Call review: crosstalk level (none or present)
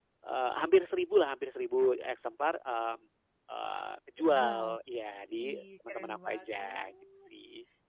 present